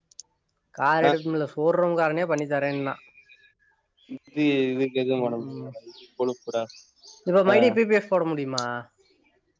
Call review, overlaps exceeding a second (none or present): none